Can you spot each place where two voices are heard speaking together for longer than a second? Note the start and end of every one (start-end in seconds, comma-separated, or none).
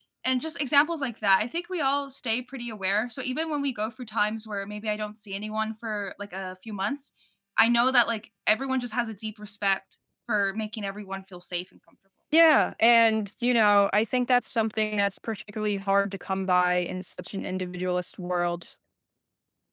none